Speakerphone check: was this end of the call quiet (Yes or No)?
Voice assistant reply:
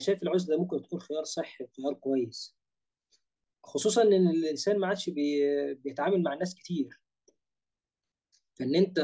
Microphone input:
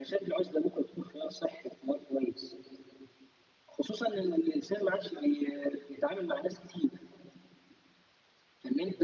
Yes